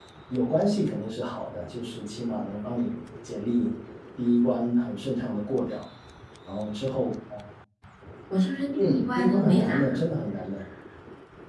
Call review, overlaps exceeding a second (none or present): present